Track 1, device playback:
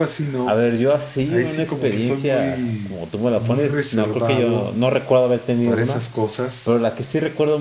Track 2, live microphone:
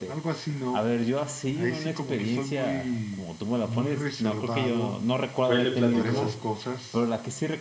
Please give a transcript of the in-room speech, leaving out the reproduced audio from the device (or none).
Fue y le platicó.